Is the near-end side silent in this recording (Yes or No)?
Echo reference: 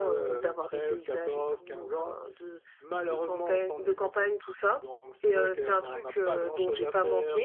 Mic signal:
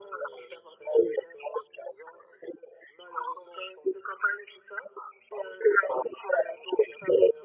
Yes